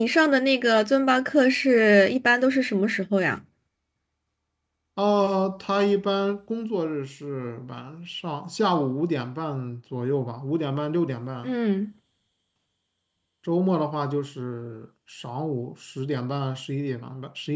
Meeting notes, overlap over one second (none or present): none